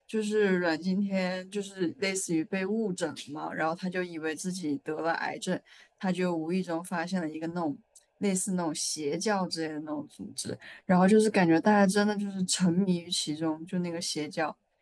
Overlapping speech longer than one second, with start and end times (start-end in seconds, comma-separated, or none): none